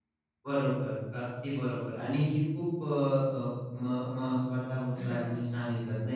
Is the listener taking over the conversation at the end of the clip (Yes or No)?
No